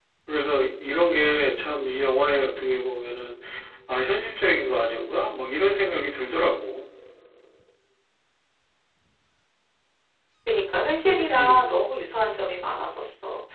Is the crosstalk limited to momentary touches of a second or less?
Yes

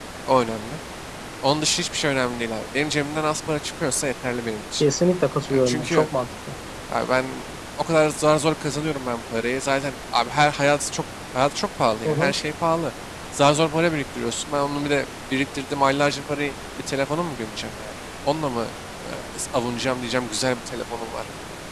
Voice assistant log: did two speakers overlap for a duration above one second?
No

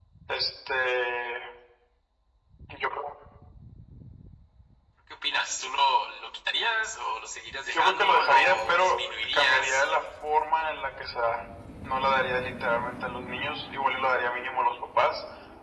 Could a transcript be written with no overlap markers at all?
No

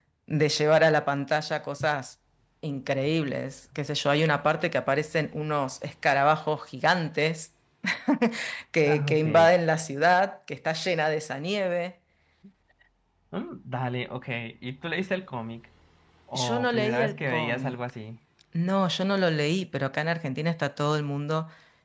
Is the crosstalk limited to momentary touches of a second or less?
No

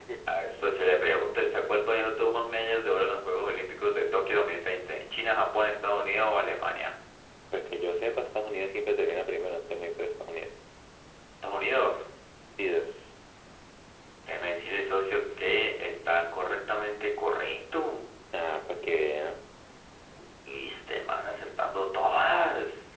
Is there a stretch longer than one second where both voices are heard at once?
No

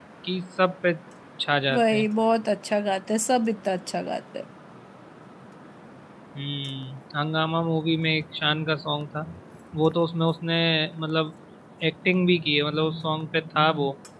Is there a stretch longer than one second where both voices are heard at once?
No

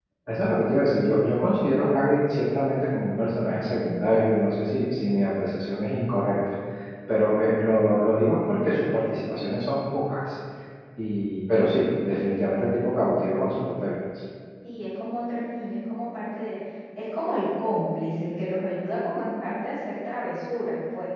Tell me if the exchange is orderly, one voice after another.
Yes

